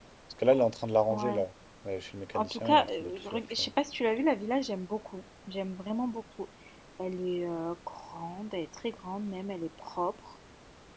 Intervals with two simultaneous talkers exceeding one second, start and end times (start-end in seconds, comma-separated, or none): 2.3-3.7